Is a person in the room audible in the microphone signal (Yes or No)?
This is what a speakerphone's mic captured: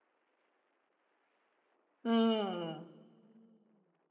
Yes